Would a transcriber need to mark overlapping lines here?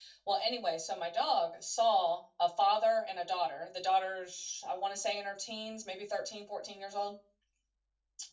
No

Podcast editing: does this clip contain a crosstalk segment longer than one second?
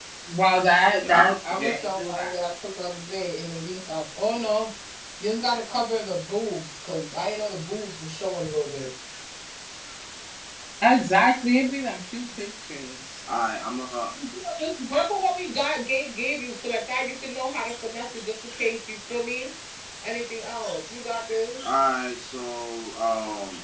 Yes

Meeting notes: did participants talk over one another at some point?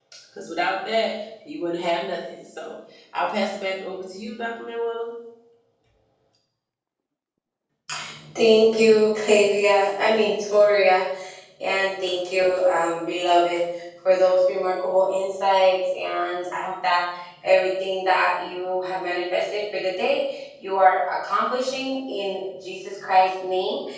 No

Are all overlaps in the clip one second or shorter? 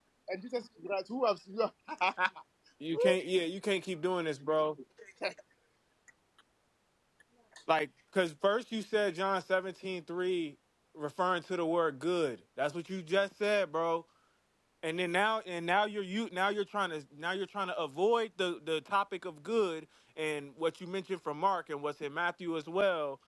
Yes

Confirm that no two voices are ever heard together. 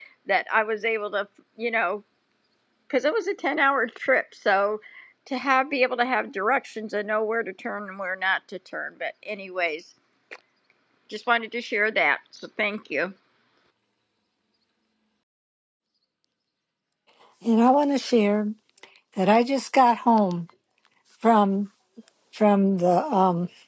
Yes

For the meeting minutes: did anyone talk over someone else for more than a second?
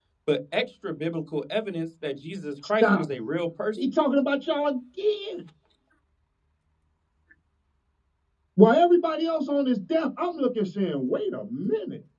No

